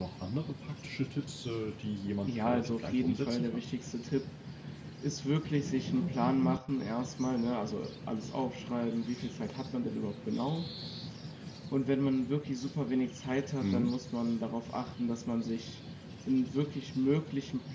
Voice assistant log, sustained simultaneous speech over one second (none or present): present